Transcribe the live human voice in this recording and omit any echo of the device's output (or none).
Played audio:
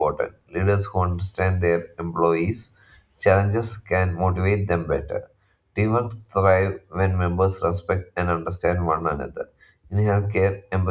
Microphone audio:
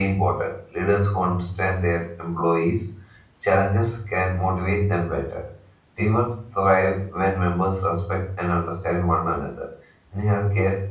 none